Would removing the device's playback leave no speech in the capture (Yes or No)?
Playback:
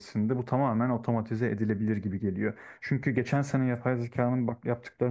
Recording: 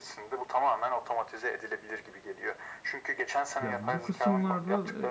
No